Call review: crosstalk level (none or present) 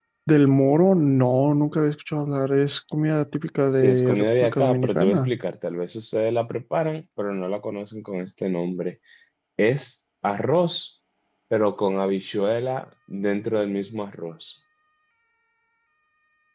present